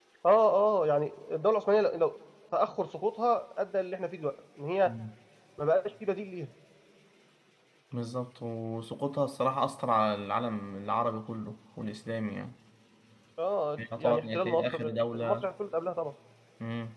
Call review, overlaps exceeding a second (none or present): present